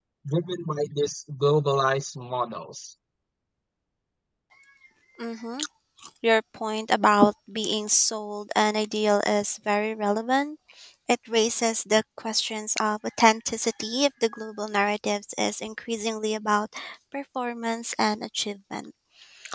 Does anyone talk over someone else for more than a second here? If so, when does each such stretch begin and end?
none

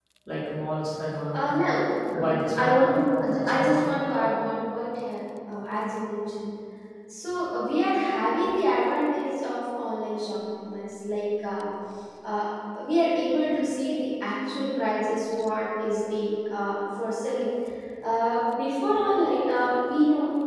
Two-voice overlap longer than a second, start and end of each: 2.1-3.8

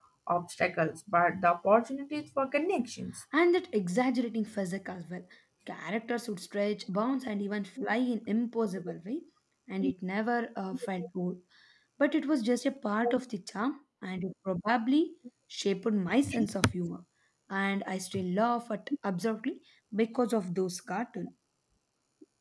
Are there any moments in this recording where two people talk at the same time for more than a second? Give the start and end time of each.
none

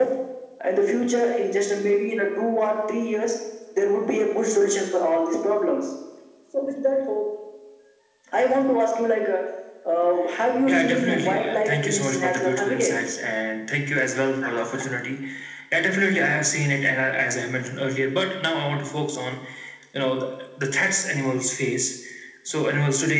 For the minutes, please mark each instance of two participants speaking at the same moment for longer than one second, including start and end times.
10.7-12.9

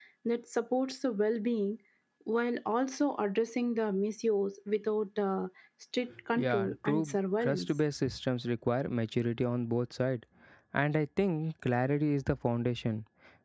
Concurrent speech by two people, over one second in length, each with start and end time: 6.4-7.6

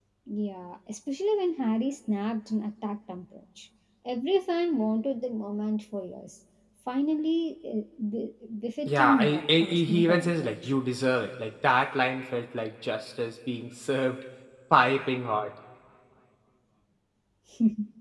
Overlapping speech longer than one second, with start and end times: 8.9-10.7

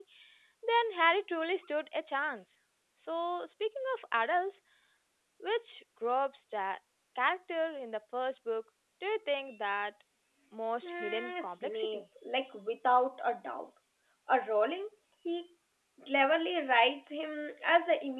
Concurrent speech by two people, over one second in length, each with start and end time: 10.8-12.0

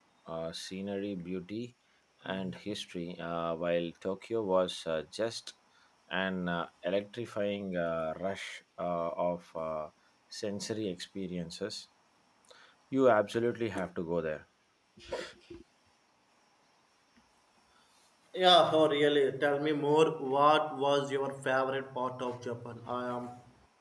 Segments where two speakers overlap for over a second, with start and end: none

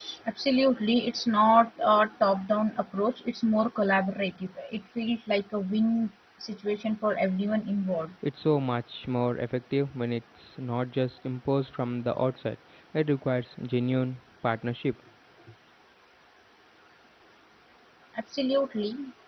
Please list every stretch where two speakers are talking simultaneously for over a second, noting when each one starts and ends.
none

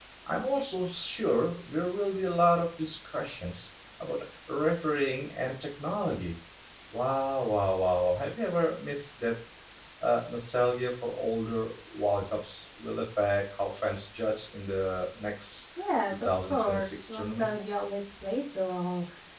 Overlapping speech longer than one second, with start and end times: 16.0-17.5

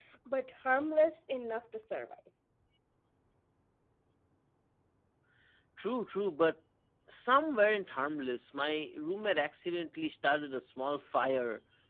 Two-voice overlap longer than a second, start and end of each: none

